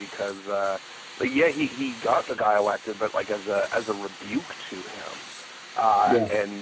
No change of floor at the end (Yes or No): Yes